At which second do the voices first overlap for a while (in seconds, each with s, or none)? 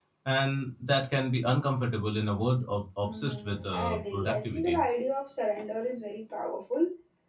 3.1 s